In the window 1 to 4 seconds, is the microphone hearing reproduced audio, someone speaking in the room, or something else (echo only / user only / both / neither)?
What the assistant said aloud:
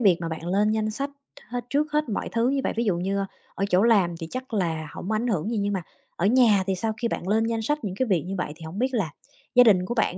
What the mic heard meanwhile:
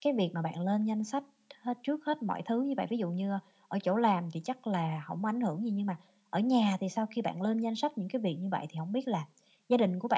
echo only